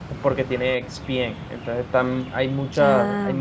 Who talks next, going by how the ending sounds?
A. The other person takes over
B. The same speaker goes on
B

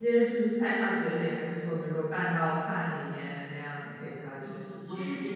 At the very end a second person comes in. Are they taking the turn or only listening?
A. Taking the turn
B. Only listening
A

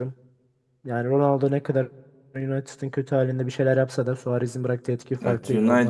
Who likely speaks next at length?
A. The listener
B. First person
A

